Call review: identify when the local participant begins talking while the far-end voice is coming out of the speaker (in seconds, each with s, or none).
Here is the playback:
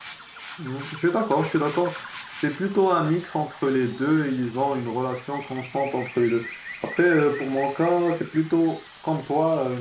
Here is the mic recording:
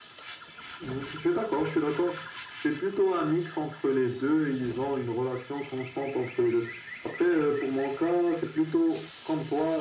none